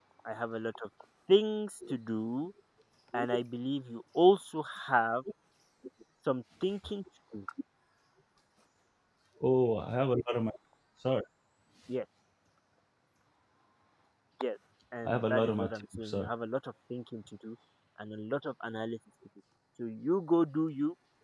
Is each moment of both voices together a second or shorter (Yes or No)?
No